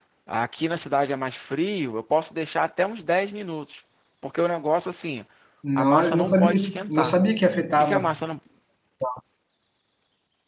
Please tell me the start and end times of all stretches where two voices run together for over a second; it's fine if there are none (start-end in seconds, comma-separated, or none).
5.8-7.1